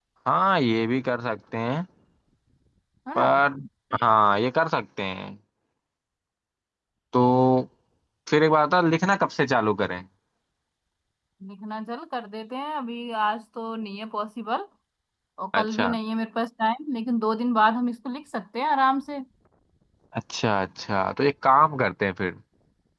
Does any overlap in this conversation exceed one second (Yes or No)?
No